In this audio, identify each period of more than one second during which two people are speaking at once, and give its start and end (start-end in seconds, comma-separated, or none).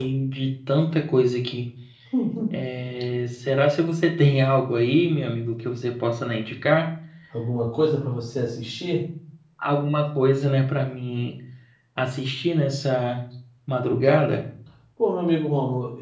none